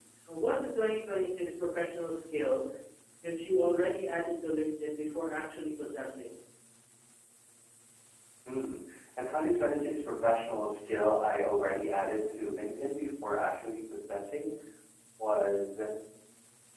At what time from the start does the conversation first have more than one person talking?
none

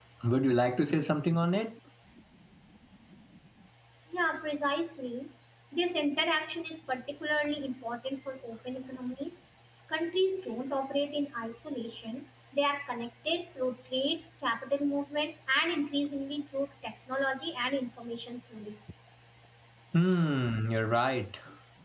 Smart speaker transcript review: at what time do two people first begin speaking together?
none

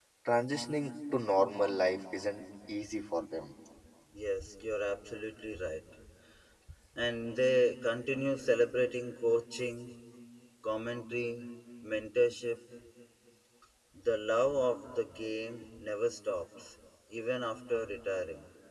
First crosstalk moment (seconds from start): none

